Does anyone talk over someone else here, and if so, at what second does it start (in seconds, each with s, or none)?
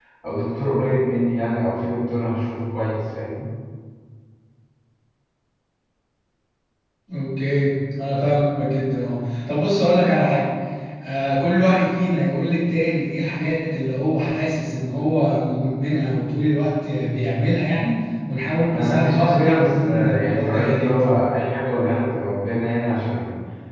18.7 s